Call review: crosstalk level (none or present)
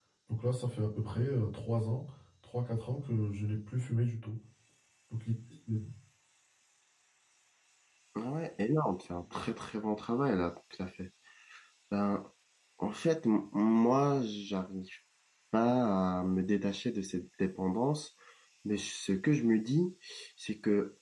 none